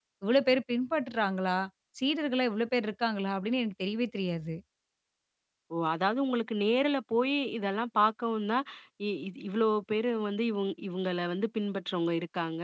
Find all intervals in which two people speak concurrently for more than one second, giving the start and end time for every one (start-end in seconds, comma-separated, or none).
none